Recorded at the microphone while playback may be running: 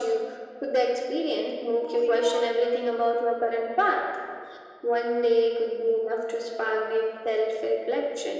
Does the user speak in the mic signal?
Yes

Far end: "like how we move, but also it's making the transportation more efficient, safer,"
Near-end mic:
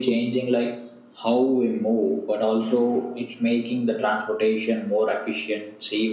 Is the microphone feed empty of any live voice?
Yes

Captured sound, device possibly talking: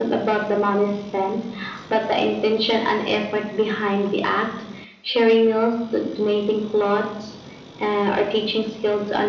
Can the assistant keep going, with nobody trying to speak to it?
Yes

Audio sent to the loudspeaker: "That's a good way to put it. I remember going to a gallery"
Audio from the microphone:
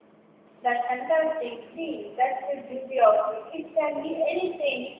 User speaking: Yes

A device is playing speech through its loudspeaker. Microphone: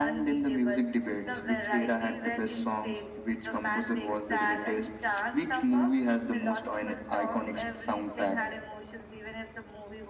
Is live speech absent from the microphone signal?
Yes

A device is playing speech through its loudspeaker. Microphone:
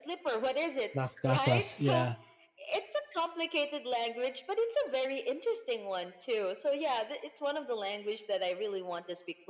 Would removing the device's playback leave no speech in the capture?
No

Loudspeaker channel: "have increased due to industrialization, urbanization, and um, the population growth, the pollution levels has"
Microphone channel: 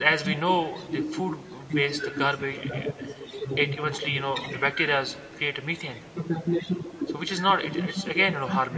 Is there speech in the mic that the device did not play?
Yes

